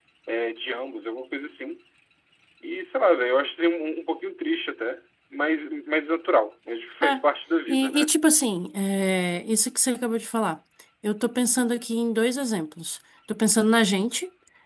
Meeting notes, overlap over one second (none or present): none